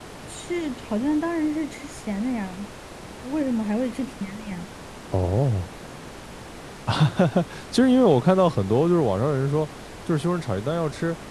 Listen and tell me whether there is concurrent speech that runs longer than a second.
No

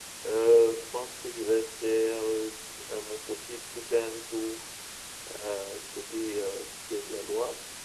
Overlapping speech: No

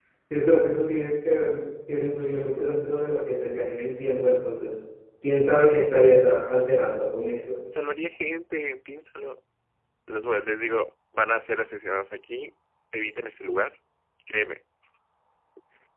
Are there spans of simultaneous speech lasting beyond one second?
No

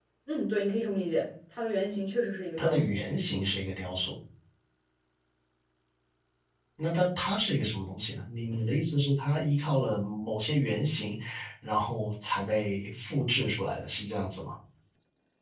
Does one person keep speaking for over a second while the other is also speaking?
No

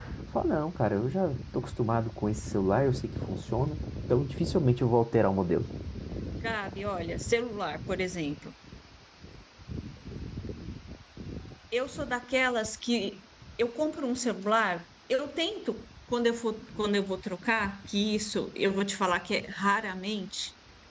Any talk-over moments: No

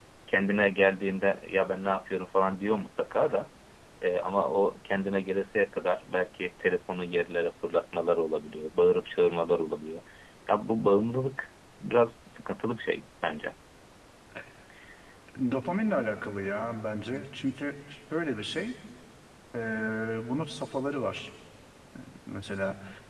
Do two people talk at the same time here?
No

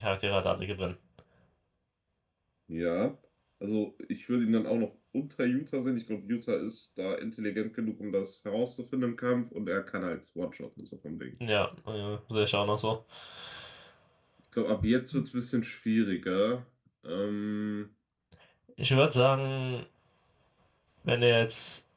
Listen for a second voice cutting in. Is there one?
No

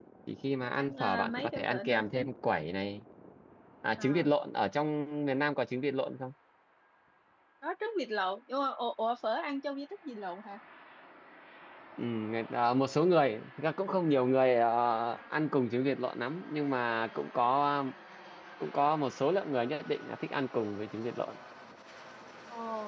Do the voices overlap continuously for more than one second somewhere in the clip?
Yes, from 0.8 s

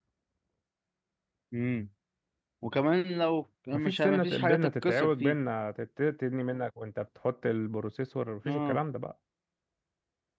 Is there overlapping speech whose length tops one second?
Yes, from 3.7 s

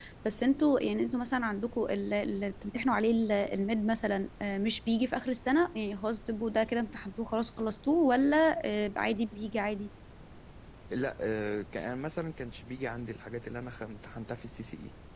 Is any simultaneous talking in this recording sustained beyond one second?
No

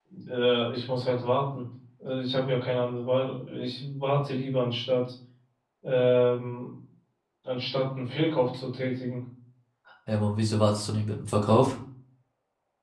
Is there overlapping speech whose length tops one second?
No

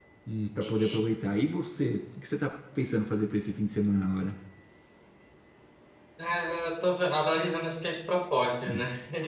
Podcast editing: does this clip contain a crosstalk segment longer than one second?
No

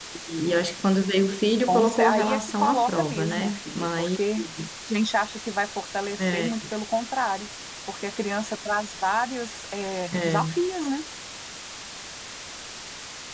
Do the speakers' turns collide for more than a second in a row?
Yes, from 1.7 s

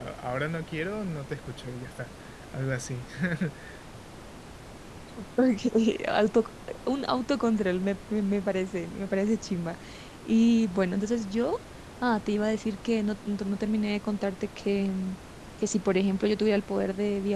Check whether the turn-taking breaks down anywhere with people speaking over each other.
No

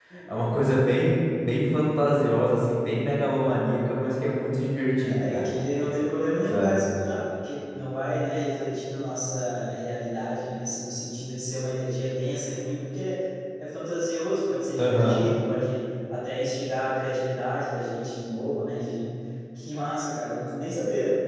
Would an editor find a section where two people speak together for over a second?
No

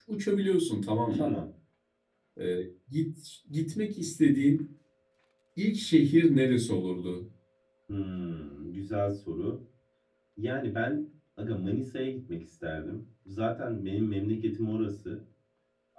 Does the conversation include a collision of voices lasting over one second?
No

